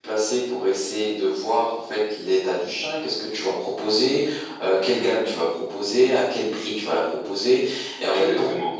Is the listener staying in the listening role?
Yes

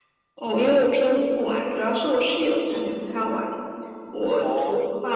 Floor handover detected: No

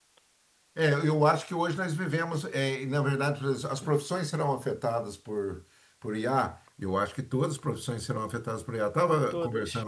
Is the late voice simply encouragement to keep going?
Yes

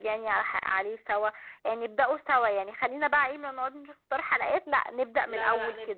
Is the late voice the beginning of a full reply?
Yes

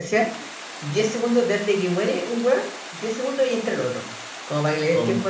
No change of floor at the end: Yes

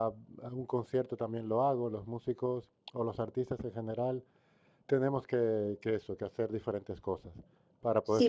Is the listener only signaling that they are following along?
No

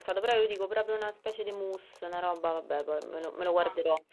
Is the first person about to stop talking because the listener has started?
Yes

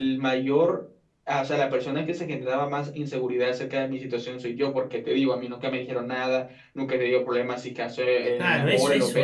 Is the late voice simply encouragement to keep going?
No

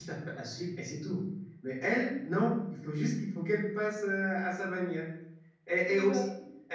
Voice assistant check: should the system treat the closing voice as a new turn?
No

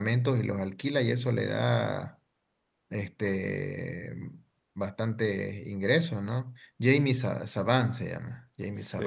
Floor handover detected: Yes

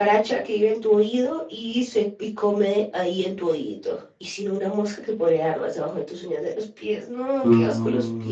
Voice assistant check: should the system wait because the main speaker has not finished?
No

